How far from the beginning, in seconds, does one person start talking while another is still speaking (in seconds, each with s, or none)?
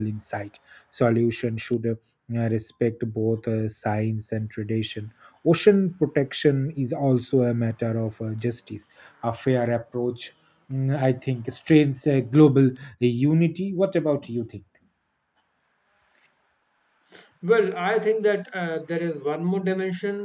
none